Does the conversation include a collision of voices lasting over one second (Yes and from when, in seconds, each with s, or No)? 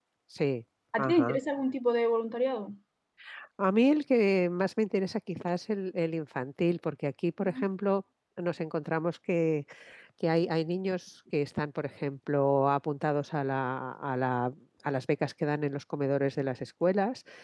No